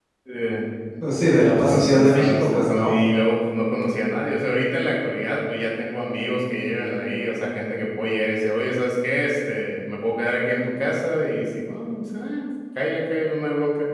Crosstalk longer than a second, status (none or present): present